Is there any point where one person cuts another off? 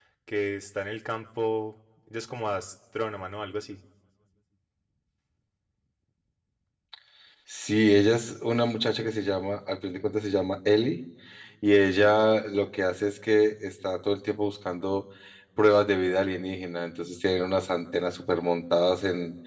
No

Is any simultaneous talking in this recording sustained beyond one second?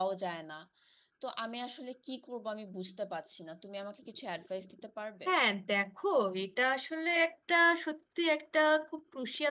No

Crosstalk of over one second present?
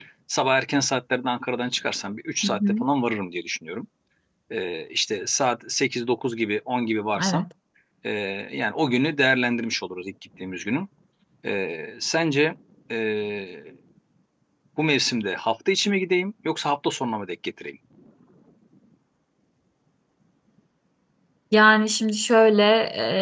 No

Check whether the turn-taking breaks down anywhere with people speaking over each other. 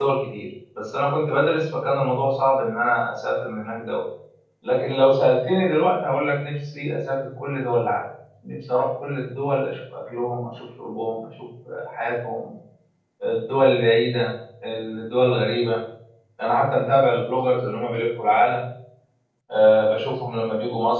No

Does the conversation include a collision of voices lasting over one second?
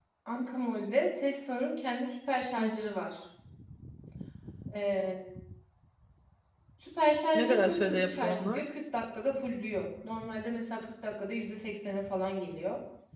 Yes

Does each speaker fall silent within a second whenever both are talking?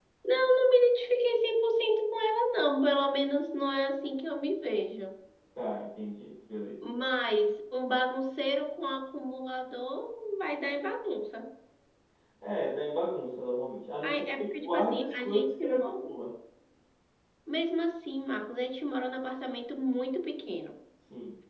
No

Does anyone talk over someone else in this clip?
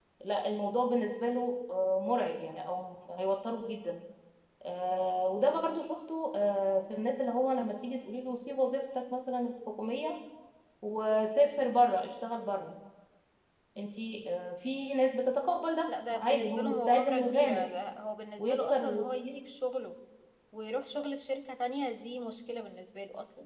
Yes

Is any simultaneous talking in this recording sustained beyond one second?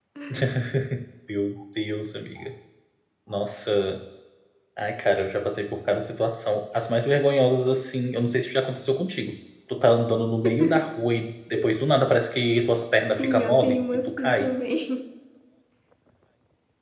Yes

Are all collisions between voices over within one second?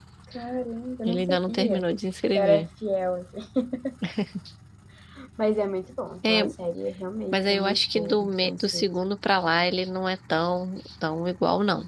No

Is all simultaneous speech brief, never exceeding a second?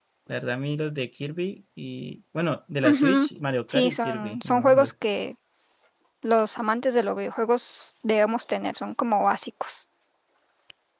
No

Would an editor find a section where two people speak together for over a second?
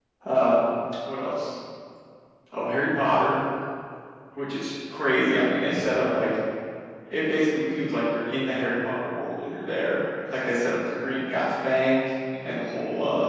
No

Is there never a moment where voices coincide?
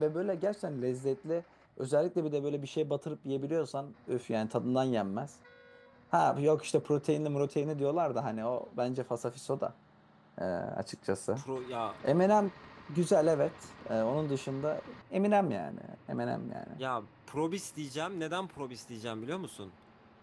Yes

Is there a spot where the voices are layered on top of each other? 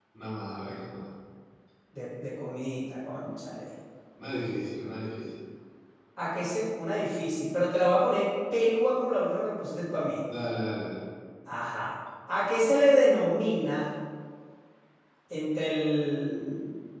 No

